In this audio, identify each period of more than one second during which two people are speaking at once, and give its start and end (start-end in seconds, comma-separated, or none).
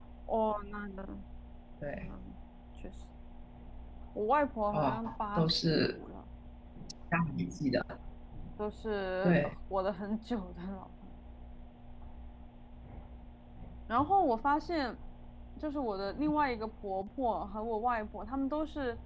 4.7-6.0